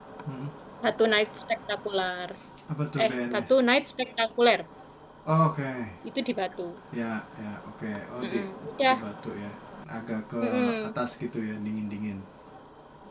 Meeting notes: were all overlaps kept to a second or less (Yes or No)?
Yes